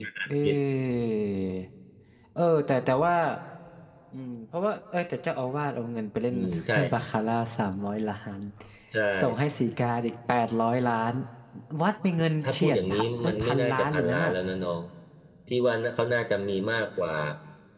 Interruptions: present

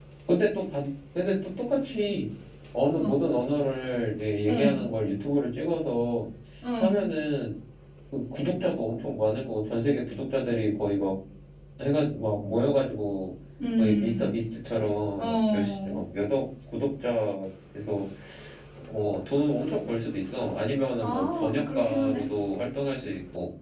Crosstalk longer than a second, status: present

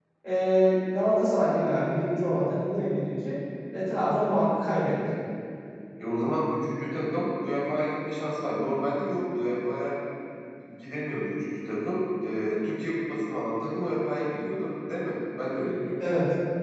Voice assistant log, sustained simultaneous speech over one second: none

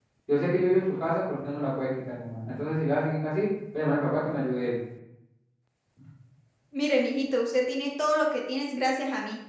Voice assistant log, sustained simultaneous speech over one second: none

